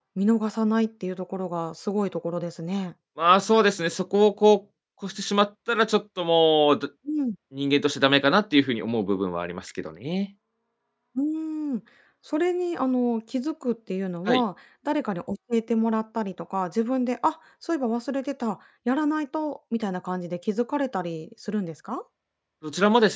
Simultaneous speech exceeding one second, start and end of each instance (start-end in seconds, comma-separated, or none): none